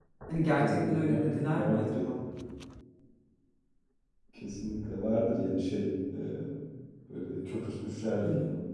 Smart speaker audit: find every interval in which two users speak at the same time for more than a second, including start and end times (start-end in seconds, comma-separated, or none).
0.6-2.2